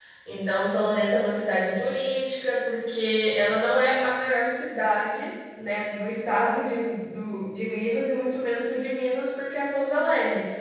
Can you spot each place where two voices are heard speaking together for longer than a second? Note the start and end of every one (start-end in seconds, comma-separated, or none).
none